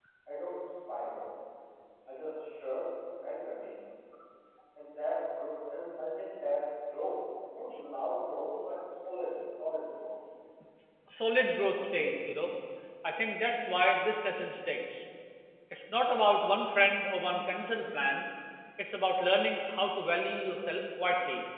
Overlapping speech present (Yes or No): No